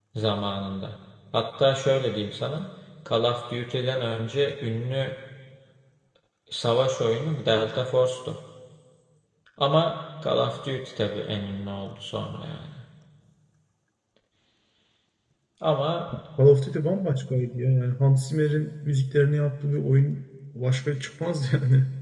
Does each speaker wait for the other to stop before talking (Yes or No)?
Yes